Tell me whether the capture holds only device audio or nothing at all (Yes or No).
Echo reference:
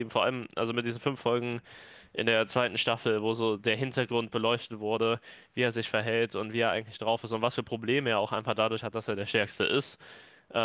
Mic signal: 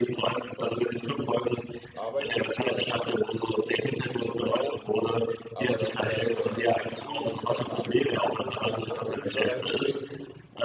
No